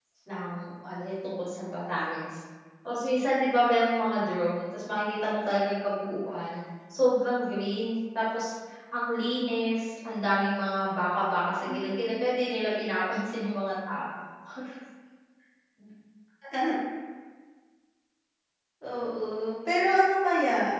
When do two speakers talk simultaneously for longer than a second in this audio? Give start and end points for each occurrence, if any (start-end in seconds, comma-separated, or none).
none